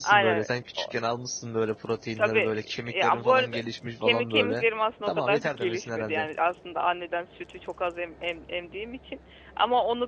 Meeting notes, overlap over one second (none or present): present